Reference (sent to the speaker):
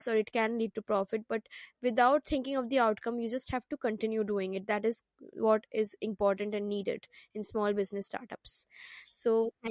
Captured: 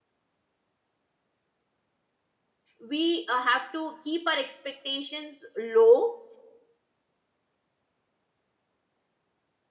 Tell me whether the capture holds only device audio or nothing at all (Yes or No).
No